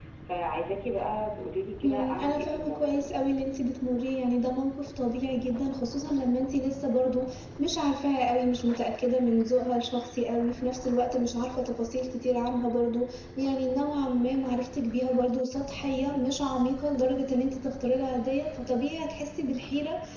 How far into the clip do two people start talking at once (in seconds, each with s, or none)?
1.8 s